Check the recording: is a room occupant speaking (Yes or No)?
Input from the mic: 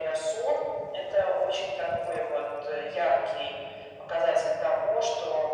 No